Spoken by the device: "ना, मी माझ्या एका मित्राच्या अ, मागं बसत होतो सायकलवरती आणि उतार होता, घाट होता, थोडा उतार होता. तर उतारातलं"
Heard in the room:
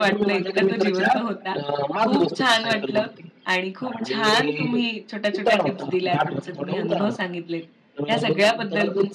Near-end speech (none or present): present